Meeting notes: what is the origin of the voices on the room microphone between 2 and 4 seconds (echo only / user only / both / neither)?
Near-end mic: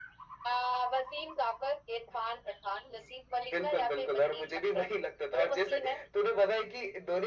echo only